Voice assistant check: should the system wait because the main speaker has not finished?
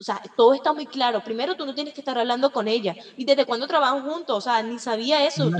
No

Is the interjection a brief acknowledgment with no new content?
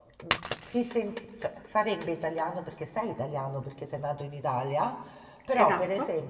Yes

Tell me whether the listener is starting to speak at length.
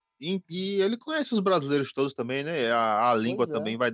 No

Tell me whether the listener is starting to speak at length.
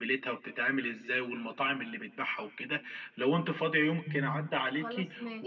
No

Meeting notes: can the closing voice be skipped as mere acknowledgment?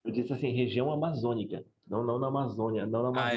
No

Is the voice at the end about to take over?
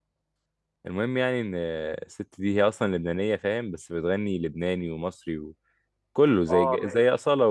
No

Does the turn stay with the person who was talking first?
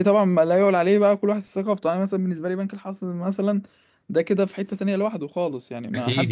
No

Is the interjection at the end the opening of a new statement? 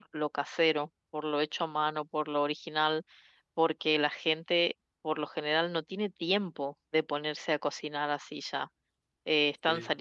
No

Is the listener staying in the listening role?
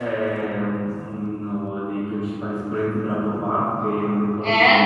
Yes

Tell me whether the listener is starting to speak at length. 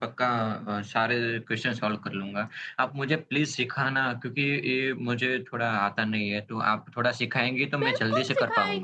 Yes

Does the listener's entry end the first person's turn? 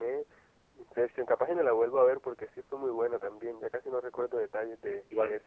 Yes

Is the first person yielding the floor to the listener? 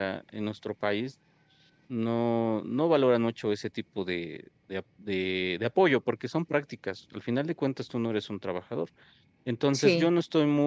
No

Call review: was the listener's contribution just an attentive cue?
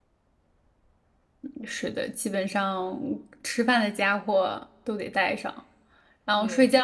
Yes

